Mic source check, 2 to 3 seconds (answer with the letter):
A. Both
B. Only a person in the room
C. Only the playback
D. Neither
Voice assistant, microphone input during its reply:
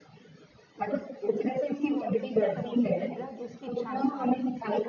A